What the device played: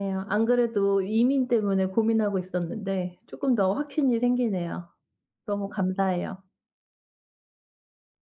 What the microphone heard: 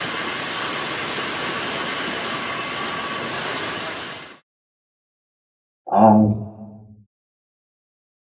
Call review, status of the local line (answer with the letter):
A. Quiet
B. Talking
B